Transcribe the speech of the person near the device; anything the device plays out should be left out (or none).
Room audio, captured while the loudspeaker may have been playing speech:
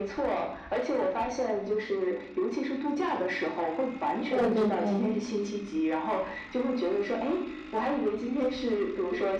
对对对。